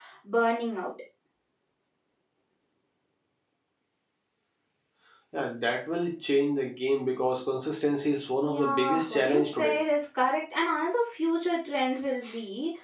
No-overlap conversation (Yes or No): No